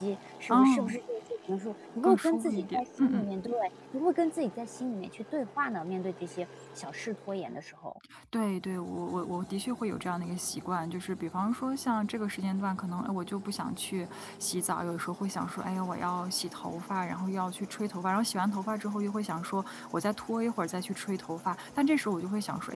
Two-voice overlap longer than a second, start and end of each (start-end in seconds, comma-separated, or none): 2.0-3.2